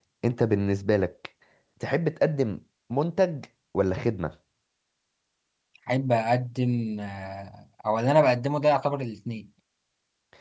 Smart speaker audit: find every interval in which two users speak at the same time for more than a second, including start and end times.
none

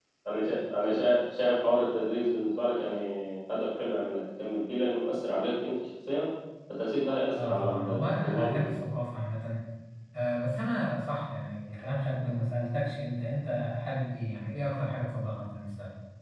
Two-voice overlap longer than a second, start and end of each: 7.4-8.7

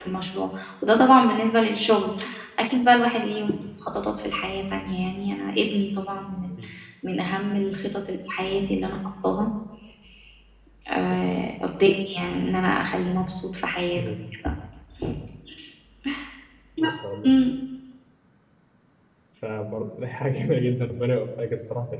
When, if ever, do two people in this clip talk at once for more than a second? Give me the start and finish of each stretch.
none

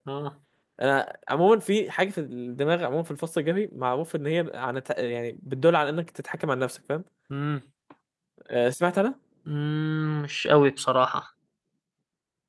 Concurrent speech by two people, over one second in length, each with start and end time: none

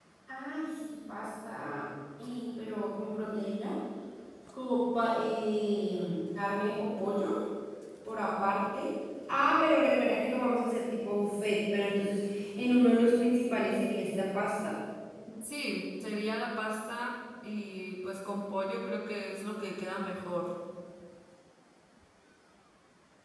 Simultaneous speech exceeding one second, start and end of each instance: none

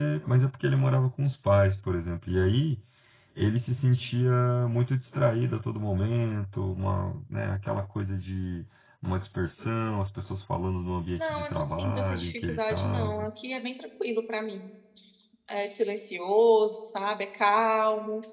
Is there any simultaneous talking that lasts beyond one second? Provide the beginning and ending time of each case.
11.2-13.3

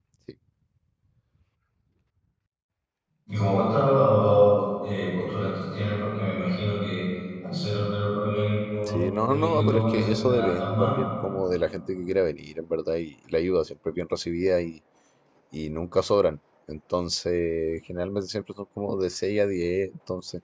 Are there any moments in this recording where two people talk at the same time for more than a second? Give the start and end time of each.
8.9-11.0

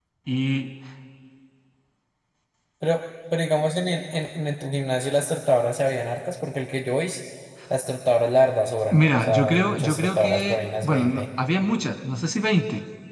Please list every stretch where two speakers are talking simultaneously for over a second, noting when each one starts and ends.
8.9-11.3

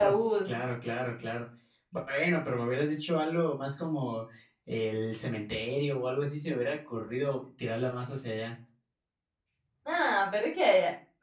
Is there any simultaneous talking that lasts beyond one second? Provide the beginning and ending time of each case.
none

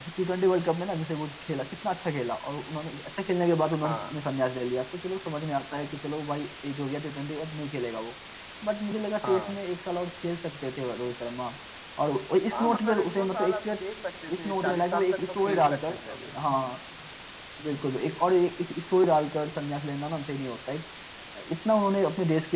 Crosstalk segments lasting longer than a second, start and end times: 12.5-13.8, 14.3-16.0

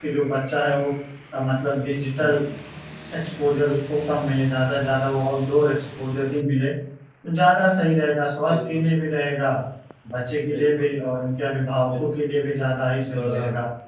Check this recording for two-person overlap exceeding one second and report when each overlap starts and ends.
none

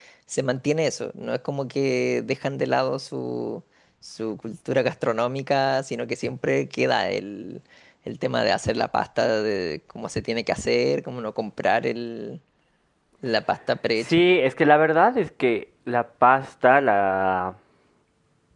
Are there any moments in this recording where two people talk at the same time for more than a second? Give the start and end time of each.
none

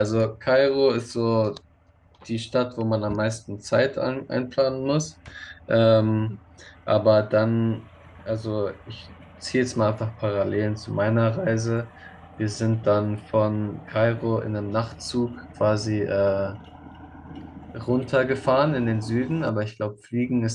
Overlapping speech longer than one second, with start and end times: none

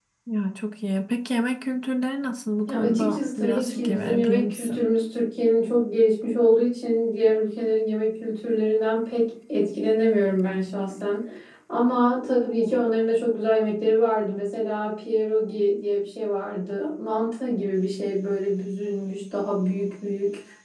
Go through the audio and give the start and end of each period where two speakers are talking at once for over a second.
2.7-4.8

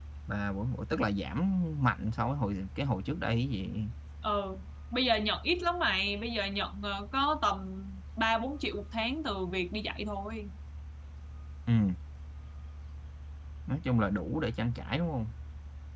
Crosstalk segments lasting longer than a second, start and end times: none

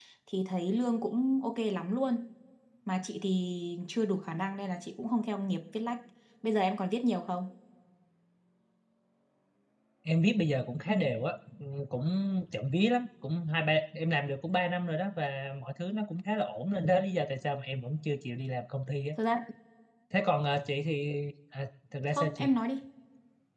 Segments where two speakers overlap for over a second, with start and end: none

